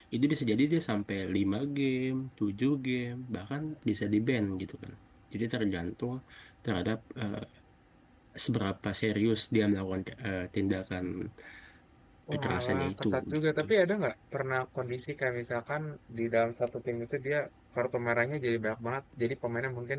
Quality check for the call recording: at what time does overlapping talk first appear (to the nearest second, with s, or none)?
12 s